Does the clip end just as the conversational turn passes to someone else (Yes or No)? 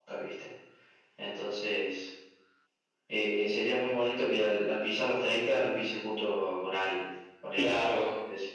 Yes